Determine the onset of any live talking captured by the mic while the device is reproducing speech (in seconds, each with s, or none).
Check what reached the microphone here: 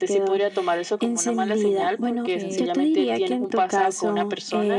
2.2 s